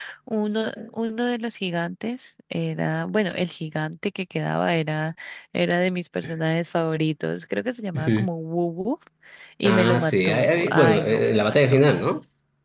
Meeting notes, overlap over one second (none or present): present